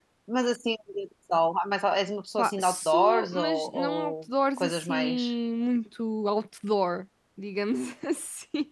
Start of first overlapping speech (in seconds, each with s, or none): 2.4 s